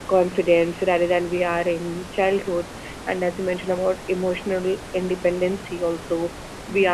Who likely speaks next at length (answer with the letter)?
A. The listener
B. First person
B